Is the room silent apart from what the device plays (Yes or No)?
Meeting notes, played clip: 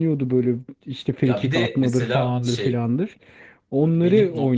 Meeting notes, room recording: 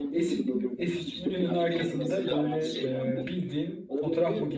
No